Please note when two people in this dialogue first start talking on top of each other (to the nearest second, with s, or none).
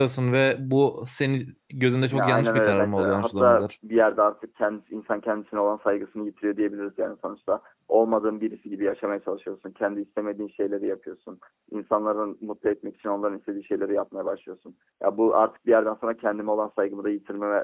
2 s